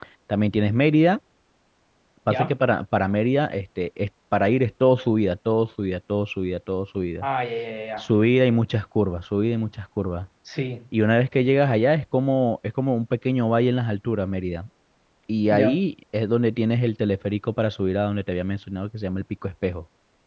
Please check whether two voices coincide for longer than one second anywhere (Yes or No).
No